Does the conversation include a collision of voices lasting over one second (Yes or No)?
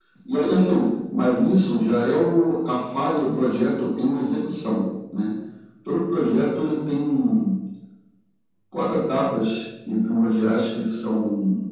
No